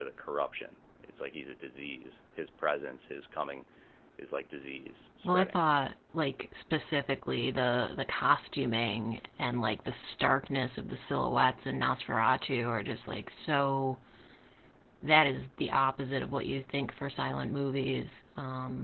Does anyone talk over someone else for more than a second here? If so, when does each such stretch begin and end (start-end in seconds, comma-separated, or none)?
none